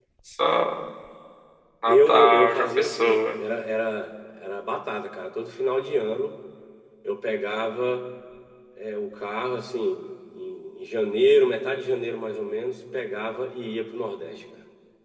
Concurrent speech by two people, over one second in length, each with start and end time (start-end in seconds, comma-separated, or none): 1.9-3.3